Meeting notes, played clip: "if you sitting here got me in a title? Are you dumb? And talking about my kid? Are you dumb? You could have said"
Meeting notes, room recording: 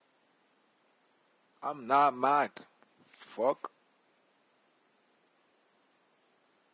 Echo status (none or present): none